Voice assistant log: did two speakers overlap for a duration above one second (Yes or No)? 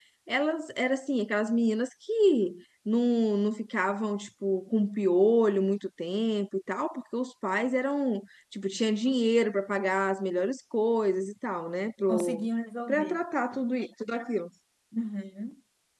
No